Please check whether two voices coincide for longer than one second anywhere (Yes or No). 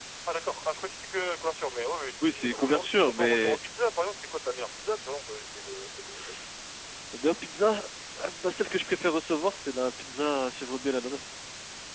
Yes